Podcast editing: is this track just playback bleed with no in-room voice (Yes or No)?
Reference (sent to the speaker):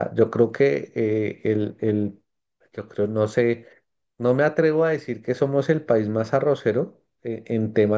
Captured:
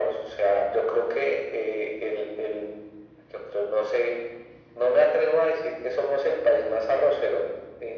Yes